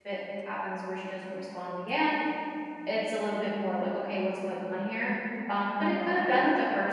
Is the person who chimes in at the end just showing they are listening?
Yes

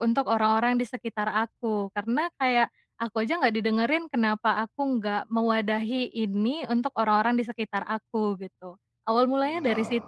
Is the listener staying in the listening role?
No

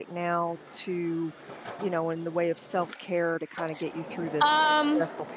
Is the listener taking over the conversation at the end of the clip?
Yes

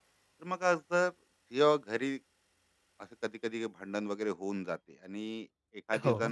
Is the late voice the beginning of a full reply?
No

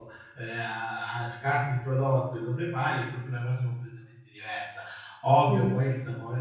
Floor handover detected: No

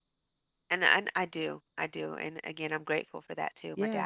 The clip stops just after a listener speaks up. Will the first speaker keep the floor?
No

